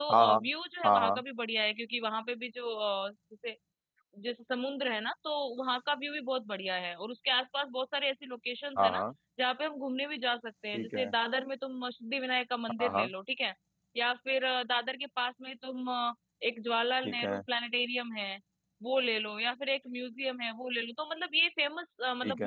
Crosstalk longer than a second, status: none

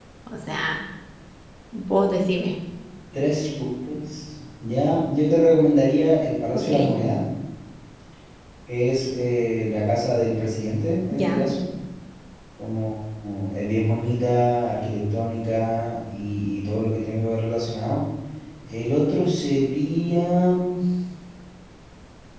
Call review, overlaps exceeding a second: none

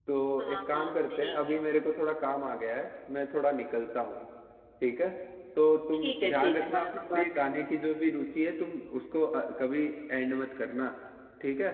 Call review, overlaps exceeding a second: present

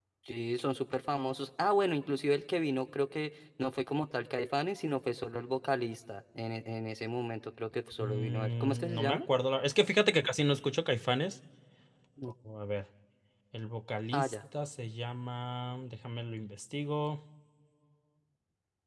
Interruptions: present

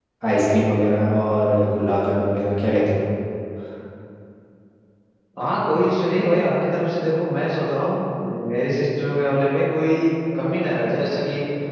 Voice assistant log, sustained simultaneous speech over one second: none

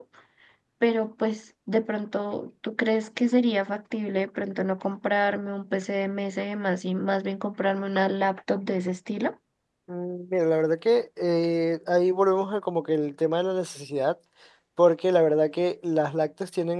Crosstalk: none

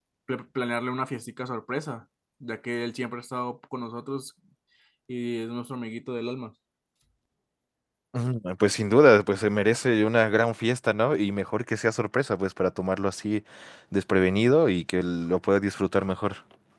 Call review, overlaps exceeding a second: none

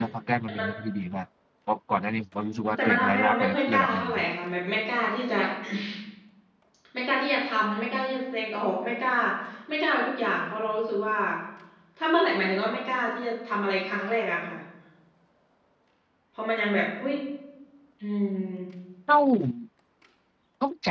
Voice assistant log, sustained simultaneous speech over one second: present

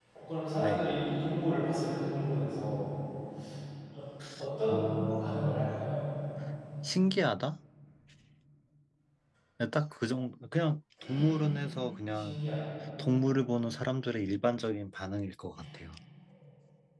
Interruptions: present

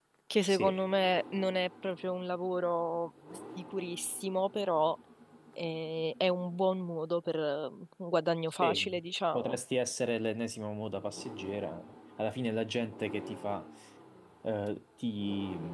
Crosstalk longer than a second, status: none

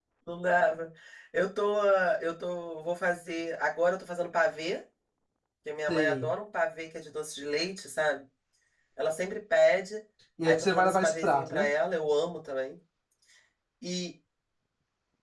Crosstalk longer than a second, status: present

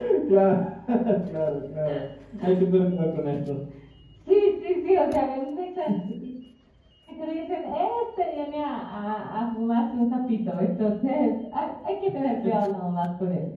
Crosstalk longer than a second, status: none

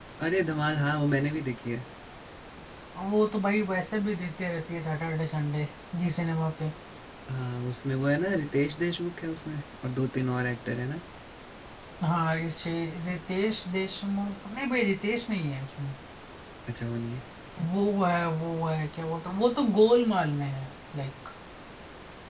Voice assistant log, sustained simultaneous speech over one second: none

